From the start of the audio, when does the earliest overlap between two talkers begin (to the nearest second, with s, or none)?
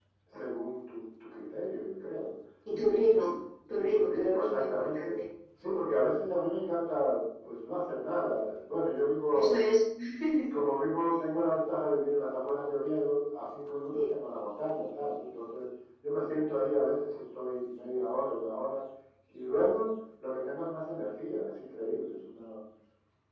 4 s